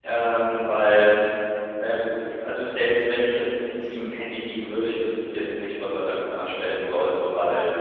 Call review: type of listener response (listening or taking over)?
listening